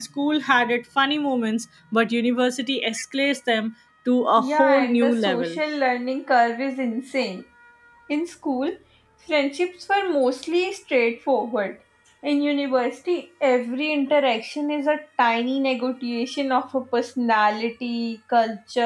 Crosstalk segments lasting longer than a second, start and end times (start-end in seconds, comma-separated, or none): 4.4-5.6